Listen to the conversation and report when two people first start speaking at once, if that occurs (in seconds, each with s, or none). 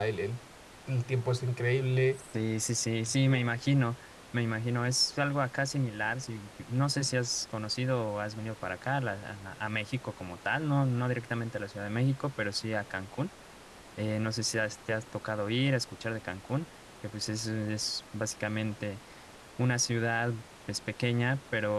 none